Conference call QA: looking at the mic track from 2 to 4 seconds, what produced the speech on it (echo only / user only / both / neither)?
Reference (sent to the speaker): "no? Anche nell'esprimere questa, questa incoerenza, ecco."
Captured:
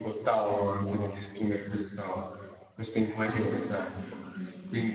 both